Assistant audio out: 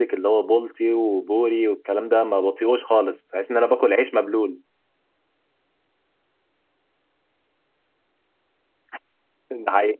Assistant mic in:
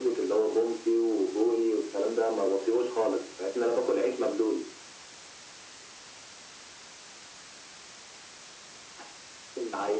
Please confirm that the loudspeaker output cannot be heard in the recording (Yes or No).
No